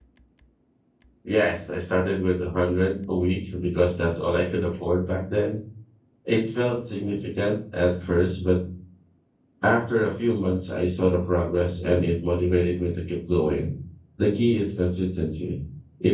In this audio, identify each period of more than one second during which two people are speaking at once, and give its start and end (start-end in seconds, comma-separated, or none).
none